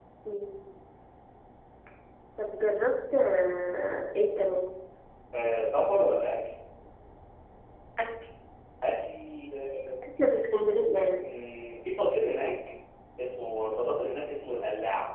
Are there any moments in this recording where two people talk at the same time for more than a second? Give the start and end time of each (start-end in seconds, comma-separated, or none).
none